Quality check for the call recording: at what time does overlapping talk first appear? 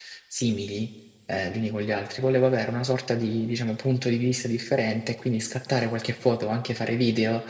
none

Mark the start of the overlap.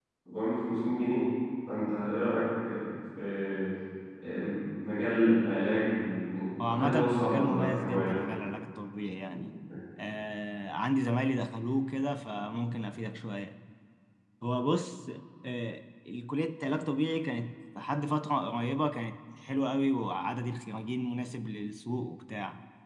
6.6 s

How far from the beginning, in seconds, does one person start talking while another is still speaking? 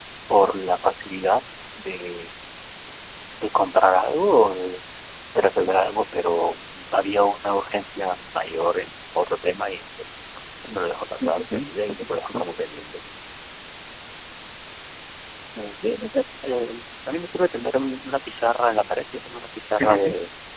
11.2 s

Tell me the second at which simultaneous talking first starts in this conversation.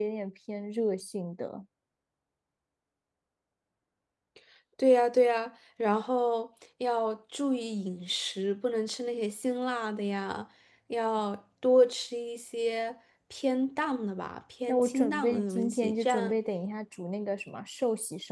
14.7 s

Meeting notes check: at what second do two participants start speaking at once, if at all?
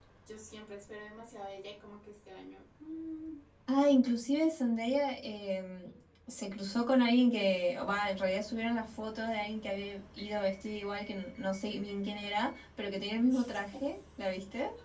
none

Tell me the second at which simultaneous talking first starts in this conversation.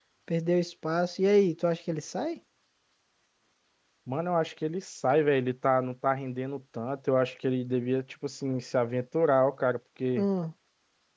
none

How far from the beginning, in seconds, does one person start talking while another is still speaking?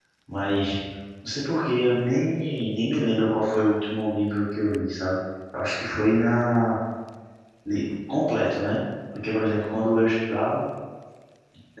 none

